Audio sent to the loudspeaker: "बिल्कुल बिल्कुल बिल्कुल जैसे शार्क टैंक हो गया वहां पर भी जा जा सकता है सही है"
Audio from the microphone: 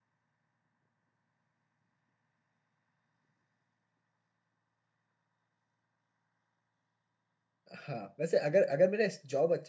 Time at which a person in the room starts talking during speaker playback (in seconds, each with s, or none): 7.7 s